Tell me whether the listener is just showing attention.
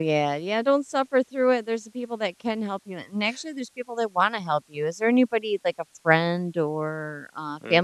No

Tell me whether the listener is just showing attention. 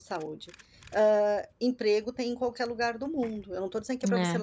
Yes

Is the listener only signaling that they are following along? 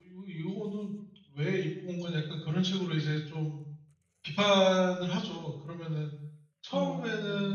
Yes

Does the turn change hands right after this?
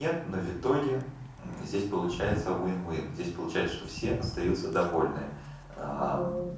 No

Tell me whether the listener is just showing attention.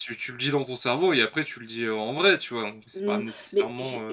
No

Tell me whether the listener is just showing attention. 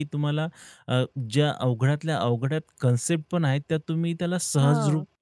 Yes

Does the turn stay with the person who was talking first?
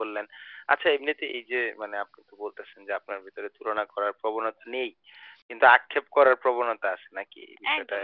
No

